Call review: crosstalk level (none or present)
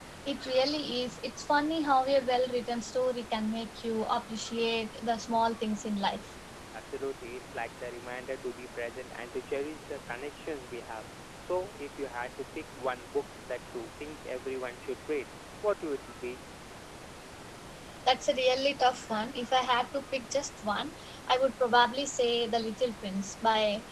none